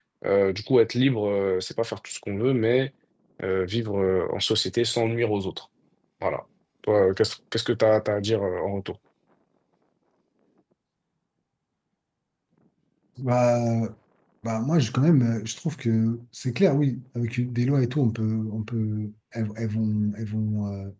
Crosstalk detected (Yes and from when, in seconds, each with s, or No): No